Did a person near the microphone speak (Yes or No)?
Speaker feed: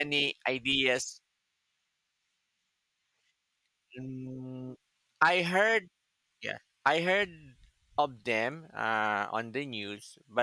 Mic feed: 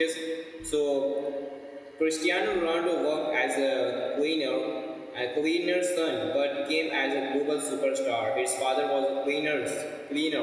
Yes